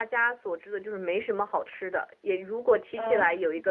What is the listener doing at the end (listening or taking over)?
listening